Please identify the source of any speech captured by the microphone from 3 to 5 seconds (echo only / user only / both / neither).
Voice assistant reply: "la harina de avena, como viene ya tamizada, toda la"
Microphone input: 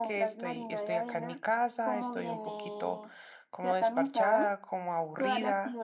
both